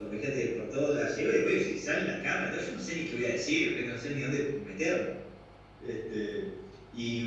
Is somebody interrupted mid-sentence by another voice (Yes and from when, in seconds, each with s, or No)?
No